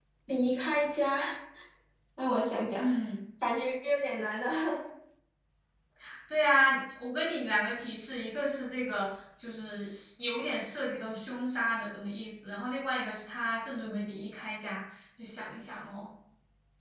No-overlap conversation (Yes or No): Yes